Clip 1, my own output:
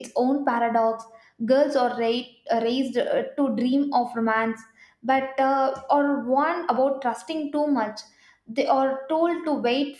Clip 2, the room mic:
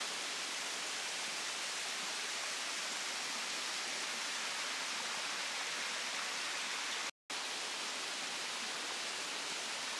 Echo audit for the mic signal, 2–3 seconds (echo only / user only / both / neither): neither